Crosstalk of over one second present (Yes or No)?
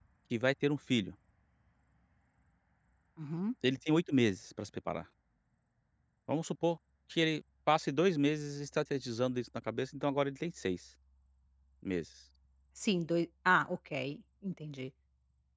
No